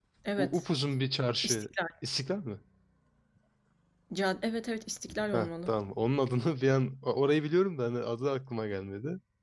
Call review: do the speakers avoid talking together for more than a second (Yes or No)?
Yes